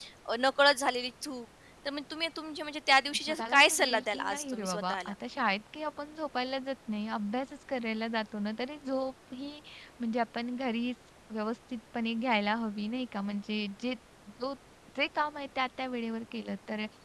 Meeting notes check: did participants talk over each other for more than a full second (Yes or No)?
Yes